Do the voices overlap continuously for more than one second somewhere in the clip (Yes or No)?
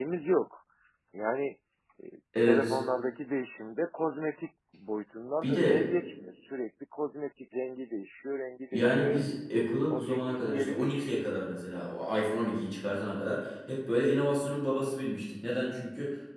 Yes